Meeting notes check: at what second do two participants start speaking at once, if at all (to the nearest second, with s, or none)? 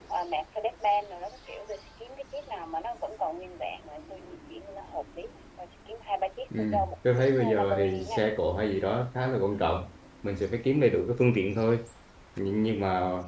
7 s